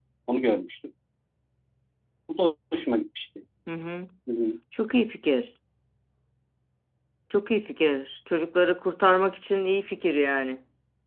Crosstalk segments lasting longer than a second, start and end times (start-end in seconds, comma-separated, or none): none